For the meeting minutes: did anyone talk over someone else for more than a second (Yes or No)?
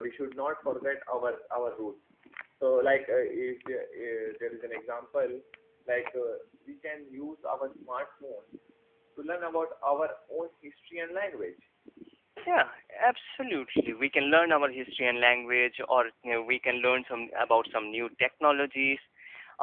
No